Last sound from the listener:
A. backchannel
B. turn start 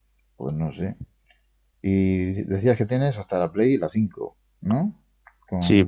B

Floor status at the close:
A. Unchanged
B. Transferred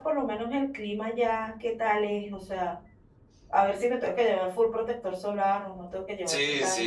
B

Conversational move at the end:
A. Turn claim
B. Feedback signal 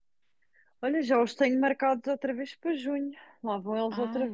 A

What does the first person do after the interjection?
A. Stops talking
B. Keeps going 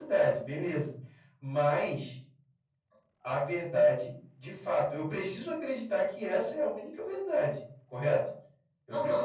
A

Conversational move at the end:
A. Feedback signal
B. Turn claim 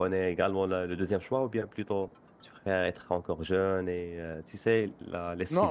B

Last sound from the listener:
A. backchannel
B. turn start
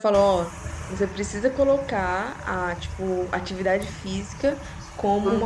A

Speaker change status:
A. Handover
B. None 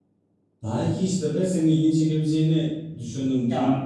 B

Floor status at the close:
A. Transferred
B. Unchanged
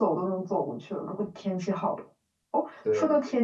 B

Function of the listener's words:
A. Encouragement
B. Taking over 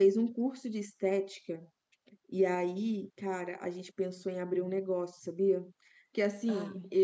A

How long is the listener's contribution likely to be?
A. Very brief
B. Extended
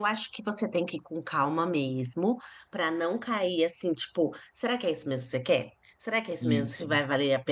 A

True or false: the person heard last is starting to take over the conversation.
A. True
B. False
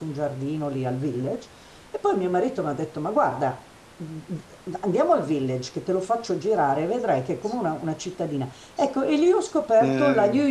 B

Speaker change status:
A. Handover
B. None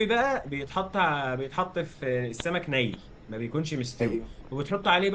B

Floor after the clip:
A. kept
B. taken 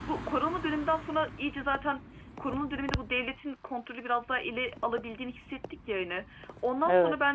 A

